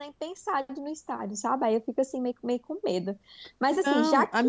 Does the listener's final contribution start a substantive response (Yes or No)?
Yes